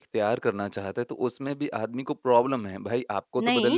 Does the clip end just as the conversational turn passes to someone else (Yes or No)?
Yes